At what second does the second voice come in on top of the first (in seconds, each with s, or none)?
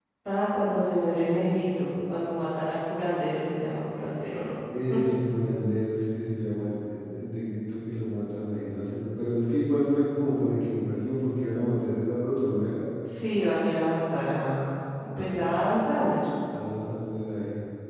none